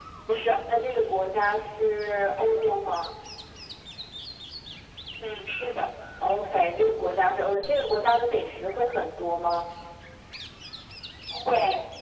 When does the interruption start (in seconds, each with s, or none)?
none